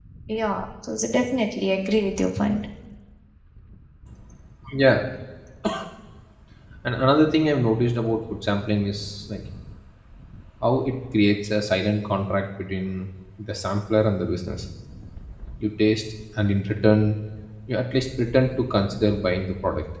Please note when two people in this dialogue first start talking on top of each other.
none

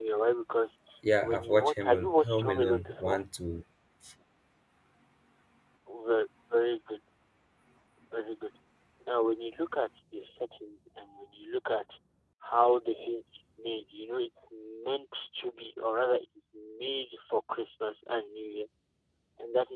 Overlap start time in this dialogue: 1.2 s

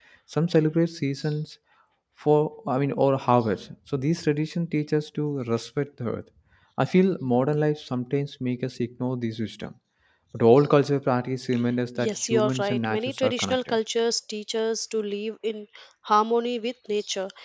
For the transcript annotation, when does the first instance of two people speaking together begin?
12.0 s

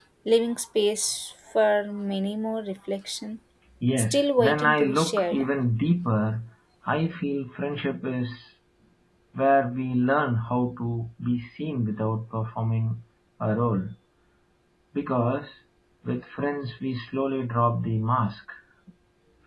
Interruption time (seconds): 4.0 s

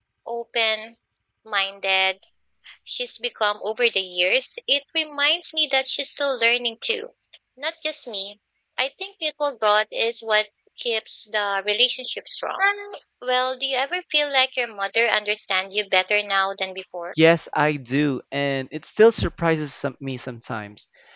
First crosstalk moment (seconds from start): none

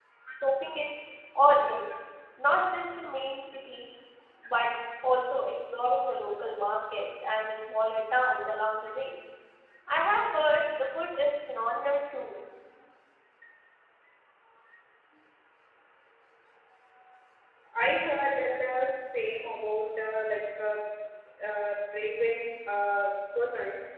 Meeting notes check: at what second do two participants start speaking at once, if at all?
none

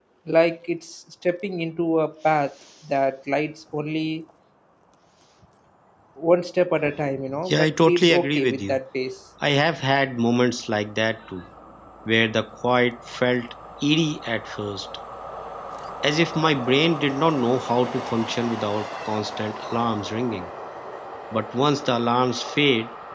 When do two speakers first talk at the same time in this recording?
7.5 s

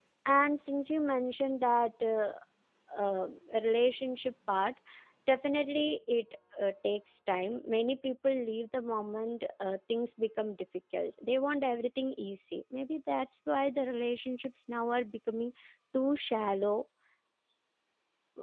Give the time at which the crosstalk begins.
none

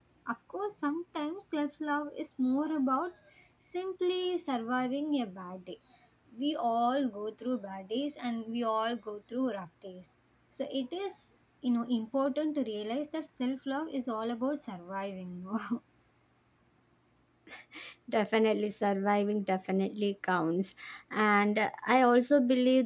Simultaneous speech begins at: none

